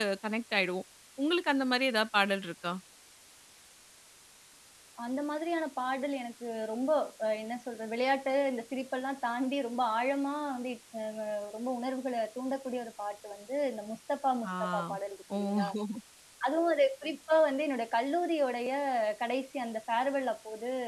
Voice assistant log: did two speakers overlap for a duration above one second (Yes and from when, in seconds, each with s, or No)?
No